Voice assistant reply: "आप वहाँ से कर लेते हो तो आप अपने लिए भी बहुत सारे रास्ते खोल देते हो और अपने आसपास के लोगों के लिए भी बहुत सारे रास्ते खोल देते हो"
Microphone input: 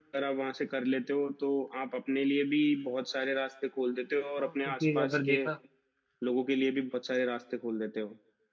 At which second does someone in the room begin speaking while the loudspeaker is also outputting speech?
4.4 s

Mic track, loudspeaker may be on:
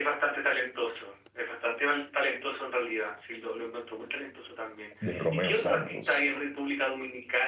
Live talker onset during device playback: 5.0 s

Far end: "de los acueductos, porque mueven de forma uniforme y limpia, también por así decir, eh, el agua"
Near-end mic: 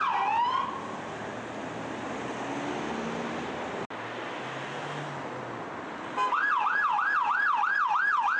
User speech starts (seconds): none

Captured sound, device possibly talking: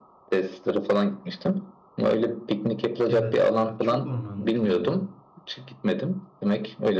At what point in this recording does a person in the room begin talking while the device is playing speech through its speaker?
3.1 s

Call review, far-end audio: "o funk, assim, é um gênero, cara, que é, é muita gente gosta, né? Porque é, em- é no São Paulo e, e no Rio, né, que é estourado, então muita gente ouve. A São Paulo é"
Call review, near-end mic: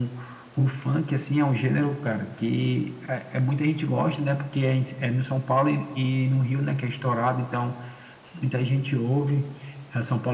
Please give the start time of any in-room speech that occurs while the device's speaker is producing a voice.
none

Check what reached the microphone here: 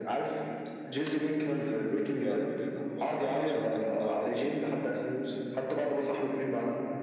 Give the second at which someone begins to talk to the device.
2.2 s

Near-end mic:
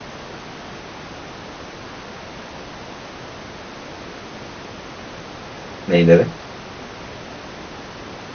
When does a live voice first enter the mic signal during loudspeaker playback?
5.9 s

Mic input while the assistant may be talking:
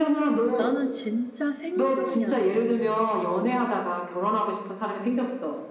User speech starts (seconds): 0.6 s

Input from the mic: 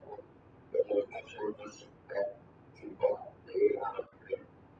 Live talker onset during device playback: none

